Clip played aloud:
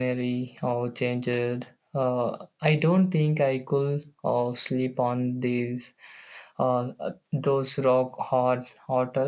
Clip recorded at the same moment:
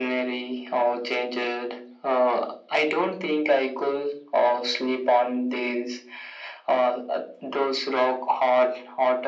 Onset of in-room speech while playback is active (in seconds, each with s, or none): none